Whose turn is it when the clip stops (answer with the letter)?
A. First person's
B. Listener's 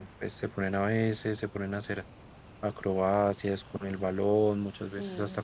B